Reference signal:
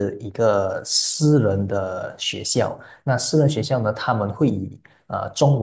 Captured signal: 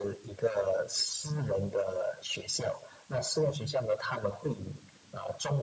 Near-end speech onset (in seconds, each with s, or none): none